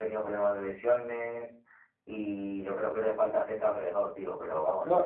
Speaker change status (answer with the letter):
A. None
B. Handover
B